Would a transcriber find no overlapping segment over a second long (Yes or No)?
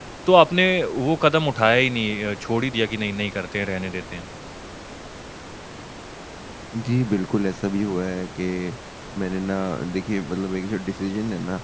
Yes